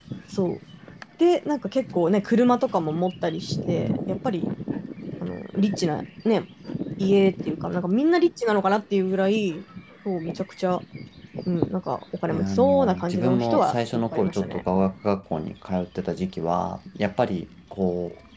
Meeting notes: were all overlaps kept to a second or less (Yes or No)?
No